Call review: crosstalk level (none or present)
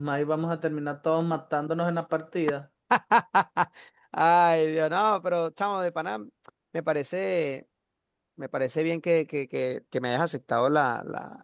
none